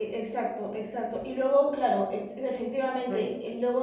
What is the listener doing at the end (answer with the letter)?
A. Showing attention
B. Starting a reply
A